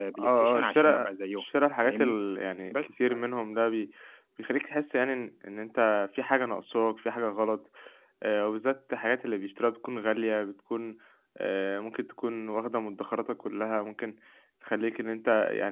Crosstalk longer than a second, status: present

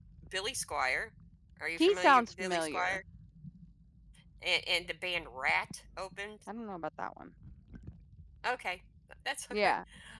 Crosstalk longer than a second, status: present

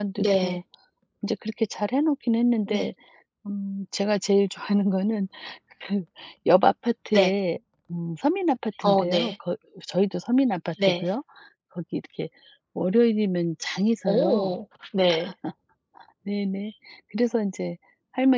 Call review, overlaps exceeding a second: none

